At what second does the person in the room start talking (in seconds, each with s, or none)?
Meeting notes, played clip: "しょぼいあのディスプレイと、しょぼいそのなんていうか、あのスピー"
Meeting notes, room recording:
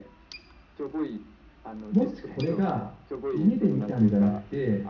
1.9 s